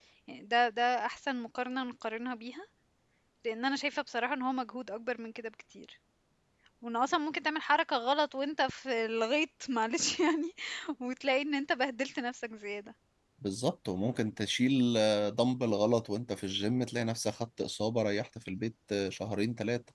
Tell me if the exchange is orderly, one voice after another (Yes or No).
Yes